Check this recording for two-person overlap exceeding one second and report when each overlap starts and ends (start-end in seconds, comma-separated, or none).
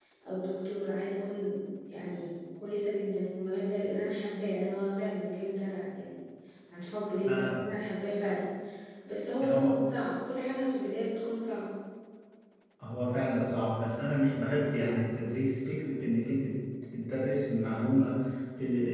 none